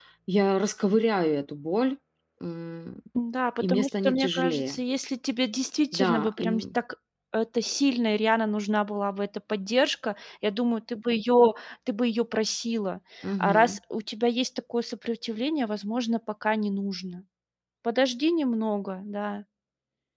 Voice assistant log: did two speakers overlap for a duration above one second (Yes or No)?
Yes